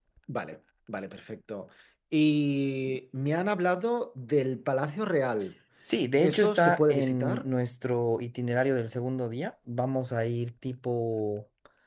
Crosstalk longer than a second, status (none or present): present